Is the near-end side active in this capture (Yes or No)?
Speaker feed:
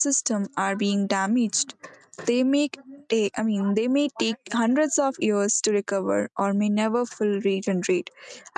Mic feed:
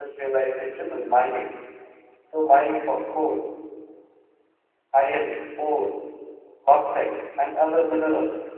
Yes